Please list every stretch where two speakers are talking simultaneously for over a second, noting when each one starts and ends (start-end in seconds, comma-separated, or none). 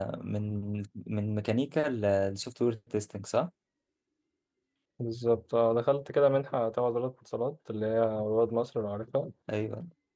none